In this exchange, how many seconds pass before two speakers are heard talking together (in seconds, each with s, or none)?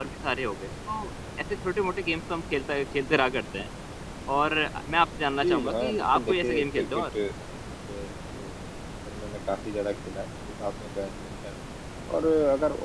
5.4 s